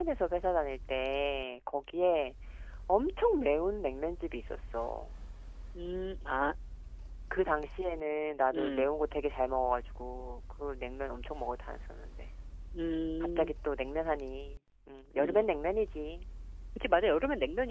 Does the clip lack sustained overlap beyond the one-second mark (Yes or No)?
Yes